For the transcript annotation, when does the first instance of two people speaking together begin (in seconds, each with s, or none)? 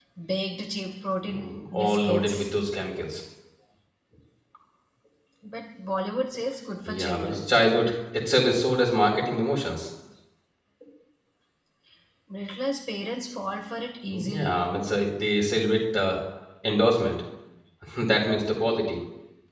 1.3 s